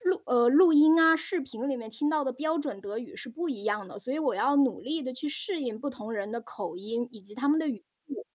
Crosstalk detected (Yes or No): No